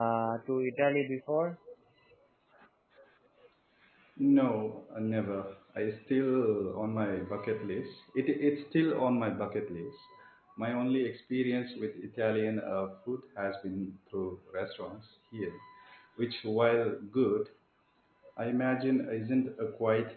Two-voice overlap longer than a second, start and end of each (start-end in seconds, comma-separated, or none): none